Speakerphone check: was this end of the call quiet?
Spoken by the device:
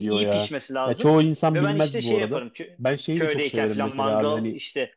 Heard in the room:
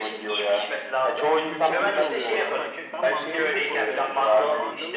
No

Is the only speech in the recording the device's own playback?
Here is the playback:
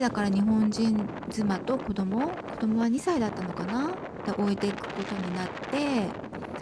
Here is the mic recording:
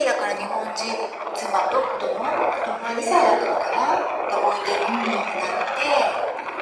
No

